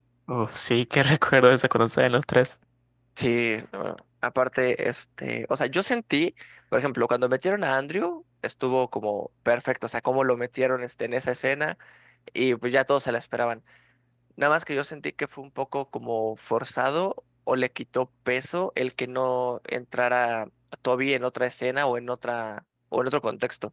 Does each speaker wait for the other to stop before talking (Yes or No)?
Yes